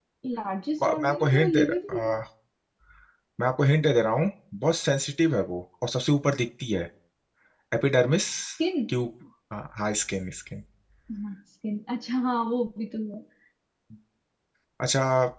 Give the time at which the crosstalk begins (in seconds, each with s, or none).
0.8 s